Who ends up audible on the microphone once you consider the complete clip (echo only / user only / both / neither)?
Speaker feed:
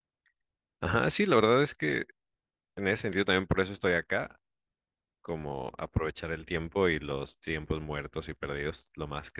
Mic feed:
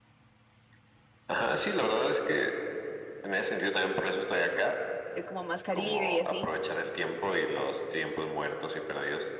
both